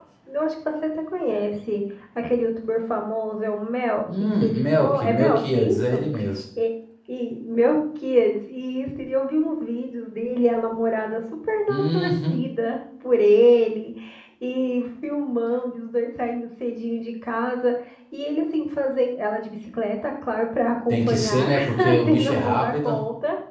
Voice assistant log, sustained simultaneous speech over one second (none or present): present